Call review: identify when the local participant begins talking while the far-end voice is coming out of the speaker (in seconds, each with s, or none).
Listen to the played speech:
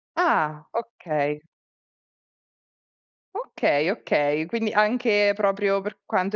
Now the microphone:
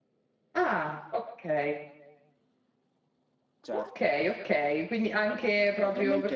3.6 s